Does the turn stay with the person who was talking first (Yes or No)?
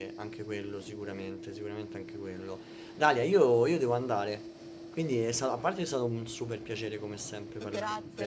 No